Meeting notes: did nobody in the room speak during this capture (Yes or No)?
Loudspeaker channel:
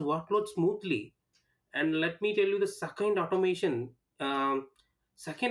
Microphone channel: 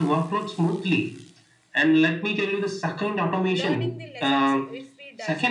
No